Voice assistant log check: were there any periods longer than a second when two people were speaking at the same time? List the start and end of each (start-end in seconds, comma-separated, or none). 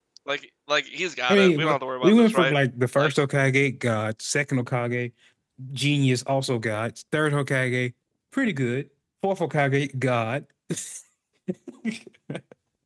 1.3-2.5